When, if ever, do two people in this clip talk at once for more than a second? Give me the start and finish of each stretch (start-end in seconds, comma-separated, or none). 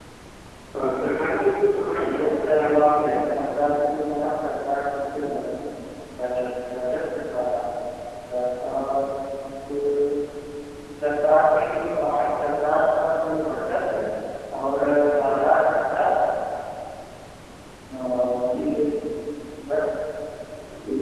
2.0-3.4